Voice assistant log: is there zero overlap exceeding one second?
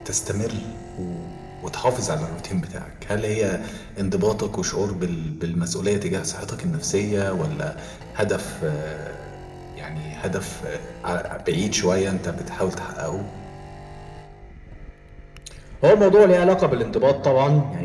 Yes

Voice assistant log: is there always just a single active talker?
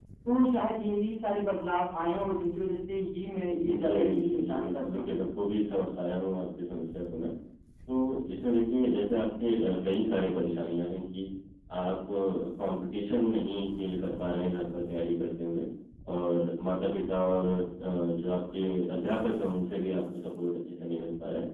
No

